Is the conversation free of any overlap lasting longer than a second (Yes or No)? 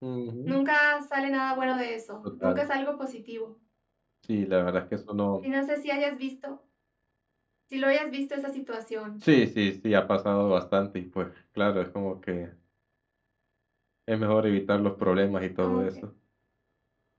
Yes